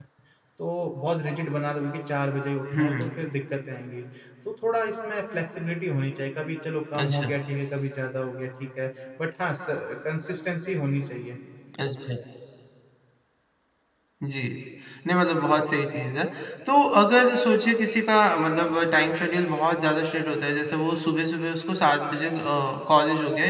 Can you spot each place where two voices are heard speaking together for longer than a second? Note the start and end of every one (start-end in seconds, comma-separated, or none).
none